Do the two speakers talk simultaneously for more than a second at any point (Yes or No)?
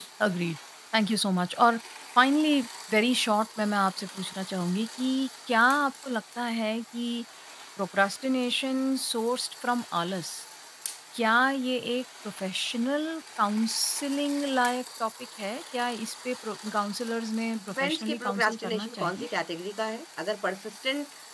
Yes